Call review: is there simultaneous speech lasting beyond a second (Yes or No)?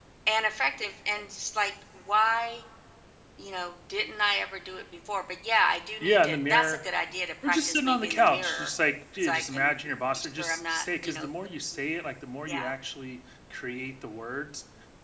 Yes